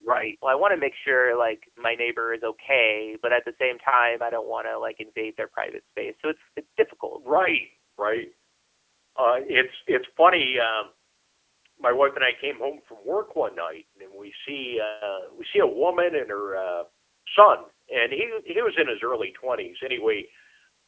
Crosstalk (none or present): none